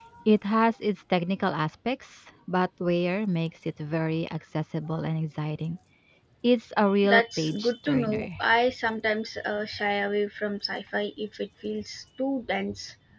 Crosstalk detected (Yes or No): Yes